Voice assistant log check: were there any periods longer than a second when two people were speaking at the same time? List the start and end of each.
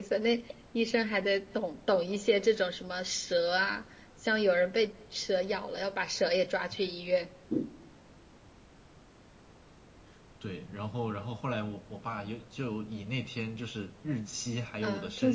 none

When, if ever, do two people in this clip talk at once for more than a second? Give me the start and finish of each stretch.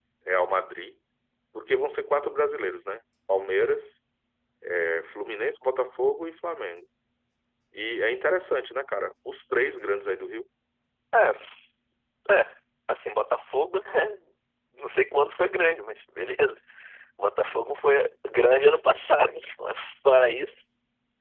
none

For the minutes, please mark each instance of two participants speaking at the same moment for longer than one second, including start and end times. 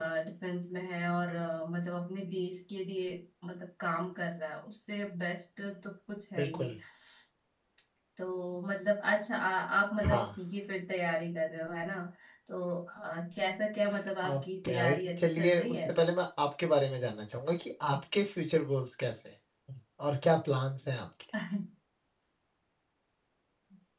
14.2-15.8

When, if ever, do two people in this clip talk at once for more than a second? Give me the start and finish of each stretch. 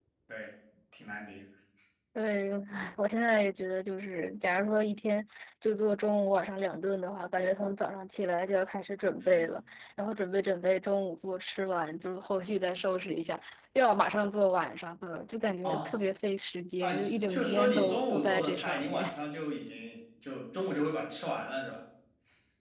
16.8-19.0

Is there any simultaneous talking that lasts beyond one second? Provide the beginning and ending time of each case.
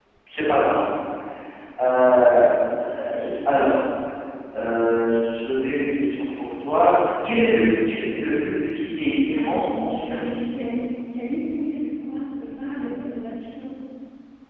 9.3-10.5

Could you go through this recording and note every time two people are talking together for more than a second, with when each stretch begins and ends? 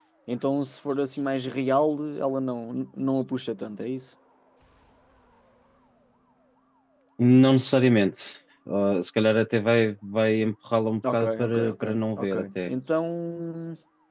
11.1-12.7

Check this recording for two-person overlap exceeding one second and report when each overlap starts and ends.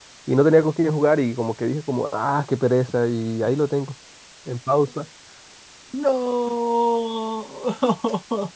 none

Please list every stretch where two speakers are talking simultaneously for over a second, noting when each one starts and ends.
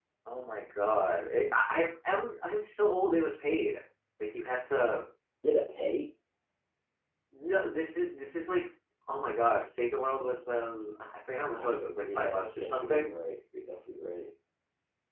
11.6-13.1

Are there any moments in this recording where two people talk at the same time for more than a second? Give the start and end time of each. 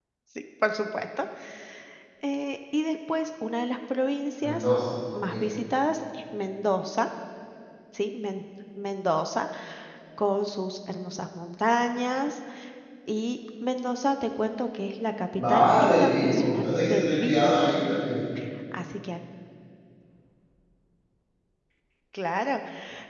15.5-17.5

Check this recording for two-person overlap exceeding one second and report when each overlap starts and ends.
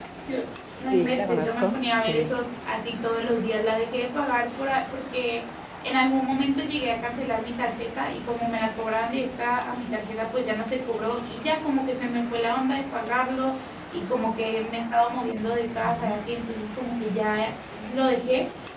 0.9-2.3

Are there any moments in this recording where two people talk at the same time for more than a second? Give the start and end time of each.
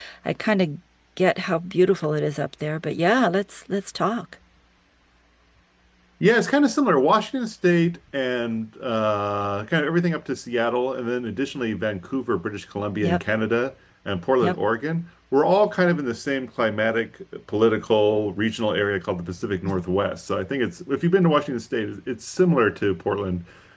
none

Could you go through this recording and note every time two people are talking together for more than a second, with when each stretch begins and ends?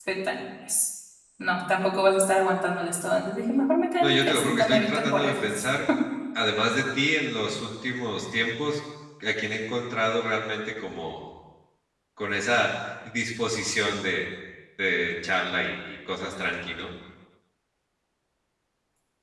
4.0-5.7

